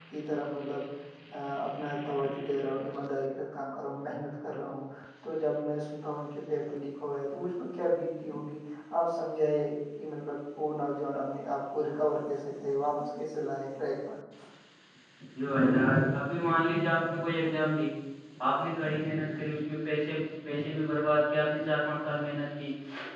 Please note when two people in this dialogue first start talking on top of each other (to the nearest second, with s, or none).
none